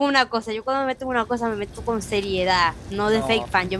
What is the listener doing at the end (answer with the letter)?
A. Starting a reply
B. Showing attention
A